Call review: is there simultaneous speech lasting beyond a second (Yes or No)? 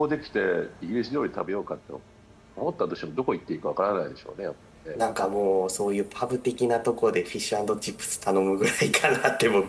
No